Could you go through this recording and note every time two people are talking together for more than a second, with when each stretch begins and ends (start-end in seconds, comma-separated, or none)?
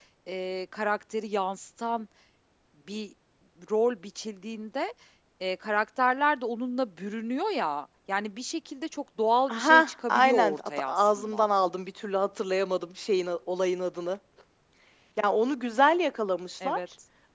9.5-11.5